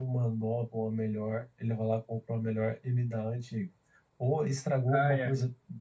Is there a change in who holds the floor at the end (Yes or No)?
No